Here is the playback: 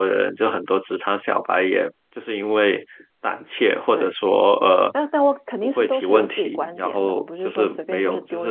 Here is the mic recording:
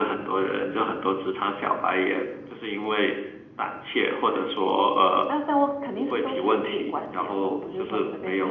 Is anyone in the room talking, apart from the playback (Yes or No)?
No